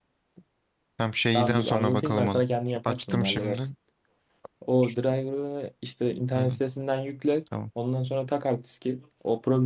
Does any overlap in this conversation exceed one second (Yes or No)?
Yes